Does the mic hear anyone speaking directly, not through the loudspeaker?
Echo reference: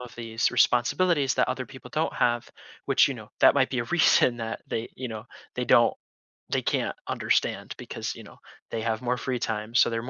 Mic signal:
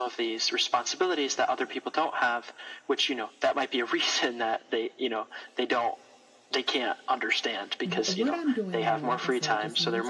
Yes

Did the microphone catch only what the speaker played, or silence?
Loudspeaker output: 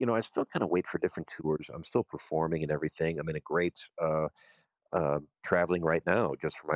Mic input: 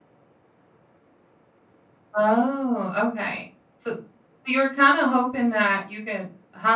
No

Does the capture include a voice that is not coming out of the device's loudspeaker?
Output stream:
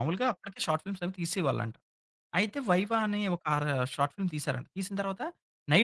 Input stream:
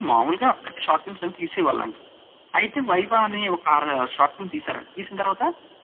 No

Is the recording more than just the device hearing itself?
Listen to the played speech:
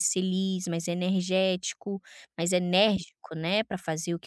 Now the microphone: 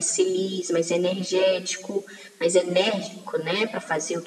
No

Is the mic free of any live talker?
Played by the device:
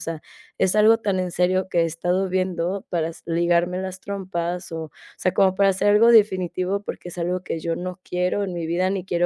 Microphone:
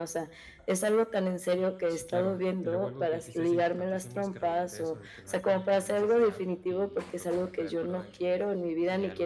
No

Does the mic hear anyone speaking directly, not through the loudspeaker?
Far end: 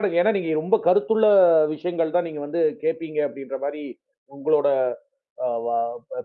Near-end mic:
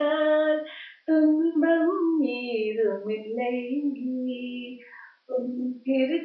Yes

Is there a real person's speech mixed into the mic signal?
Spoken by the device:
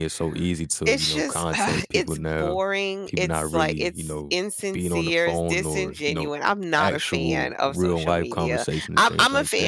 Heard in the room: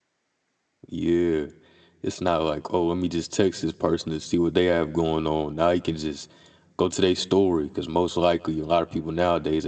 Yes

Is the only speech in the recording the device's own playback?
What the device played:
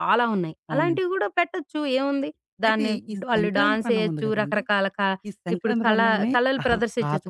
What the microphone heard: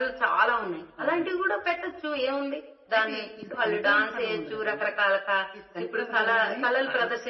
Yes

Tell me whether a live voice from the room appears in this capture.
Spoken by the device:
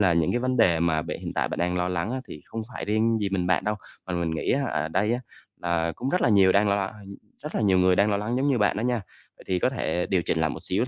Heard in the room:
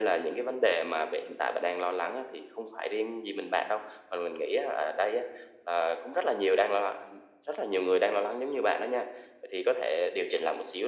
No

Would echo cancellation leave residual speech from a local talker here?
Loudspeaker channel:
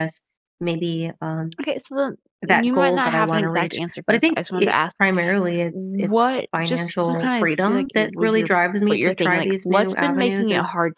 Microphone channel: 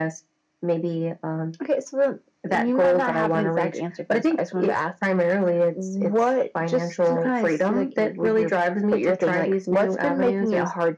No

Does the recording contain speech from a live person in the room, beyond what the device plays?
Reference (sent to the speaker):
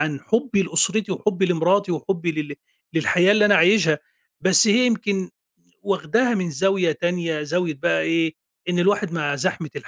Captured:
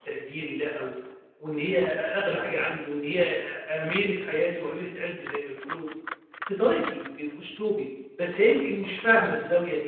Yes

